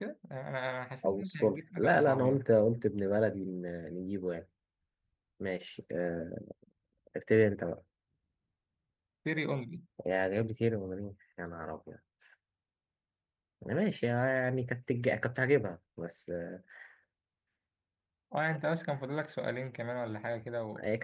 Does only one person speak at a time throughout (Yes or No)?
No